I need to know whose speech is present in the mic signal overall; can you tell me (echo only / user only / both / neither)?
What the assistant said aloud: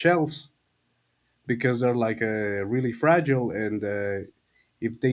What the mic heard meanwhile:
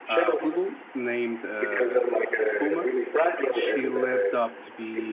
both